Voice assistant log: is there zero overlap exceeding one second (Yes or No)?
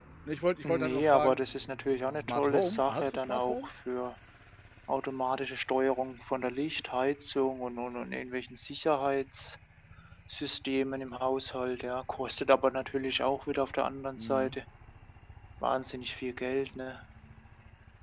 No